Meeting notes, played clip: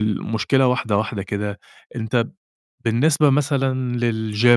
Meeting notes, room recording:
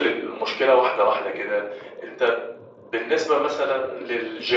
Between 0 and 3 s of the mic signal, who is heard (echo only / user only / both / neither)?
echo only